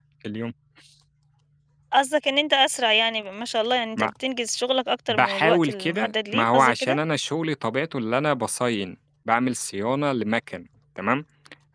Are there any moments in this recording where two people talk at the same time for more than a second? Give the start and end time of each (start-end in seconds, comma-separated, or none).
5.1-7.0